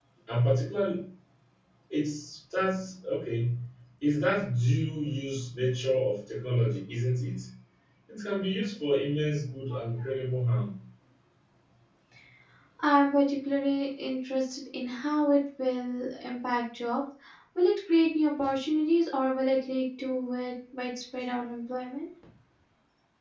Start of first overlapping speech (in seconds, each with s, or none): none